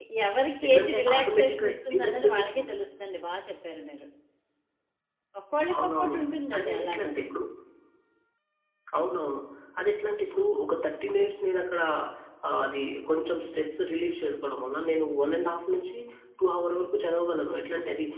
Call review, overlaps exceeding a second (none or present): present